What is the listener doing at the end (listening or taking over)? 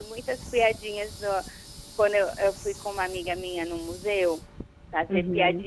listening